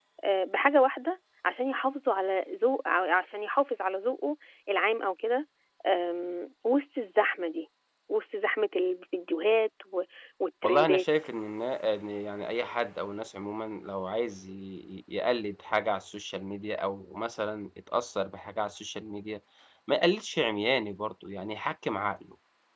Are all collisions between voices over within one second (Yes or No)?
Yes